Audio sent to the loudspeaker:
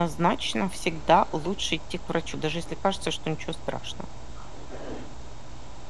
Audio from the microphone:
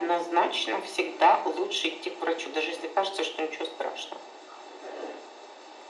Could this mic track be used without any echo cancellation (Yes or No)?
No